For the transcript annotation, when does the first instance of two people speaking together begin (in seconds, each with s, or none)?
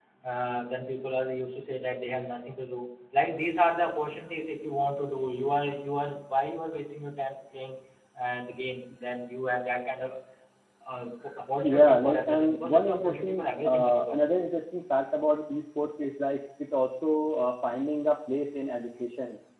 11.6 s